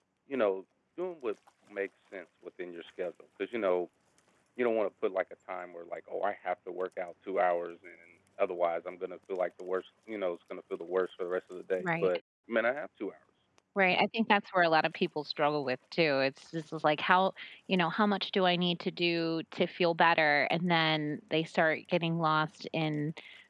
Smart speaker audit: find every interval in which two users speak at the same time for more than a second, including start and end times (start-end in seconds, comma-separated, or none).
none